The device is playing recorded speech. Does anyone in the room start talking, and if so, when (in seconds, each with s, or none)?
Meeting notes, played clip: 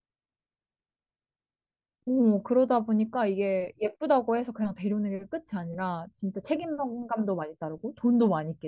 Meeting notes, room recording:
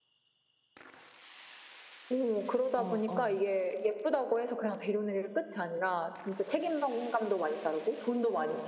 2.8 s